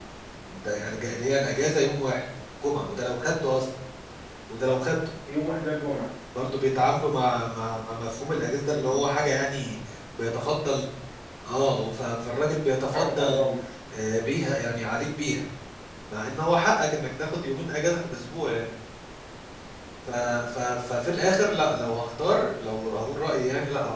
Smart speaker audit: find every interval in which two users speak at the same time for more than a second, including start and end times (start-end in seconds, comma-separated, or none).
none